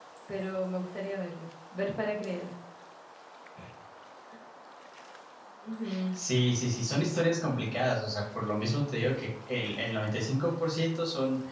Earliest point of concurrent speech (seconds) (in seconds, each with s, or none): none